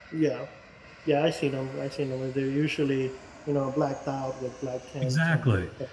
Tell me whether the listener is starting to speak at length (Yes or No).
Yes